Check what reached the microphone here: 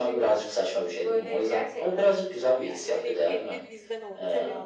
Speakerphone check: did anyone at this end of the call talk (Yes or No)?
Yes